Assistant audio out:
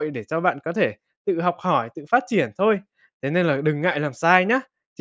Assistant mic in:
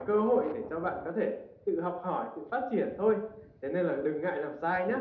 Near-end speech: none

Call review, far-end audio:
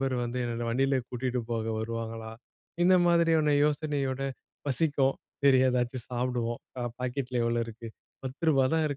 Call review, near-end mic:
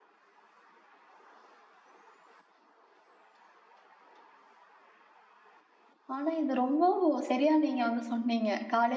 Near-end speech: present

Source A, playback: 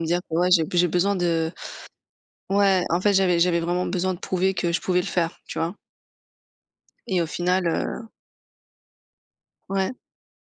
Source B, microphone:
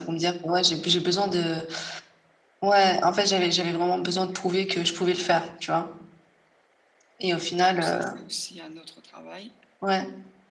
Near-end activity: present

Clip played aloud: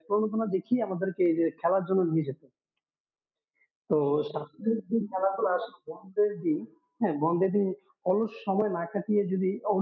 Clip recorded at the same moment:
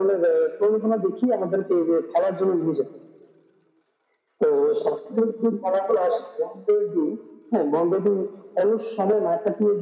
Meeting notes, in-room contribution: none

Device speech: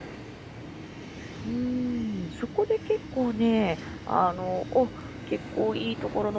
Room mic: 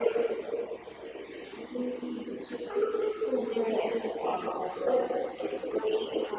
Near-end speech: present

